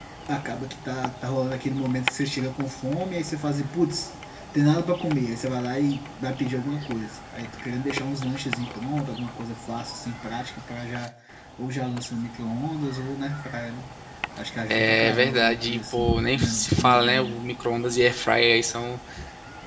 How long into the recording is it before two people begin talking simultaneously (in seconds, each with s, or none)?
14.7 s